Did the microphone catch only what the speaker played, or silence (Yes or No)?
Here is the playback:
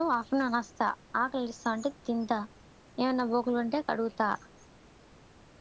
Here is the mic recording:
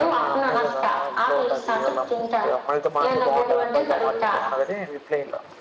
No